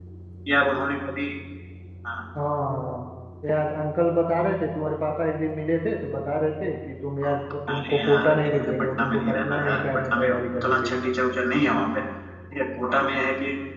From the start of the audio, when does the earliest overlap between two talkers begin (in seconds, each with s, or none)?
7.7 s